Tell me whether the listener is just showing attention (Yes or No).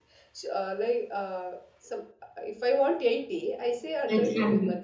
Yes